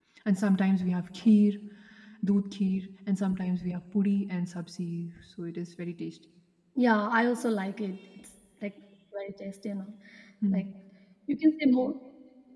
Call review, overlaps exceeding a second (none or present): none